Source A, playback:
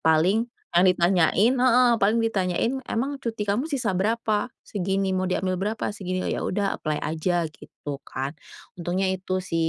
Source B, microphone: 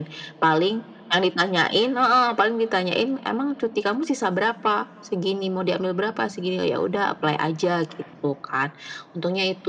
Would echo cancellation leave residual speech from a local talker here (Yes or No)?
No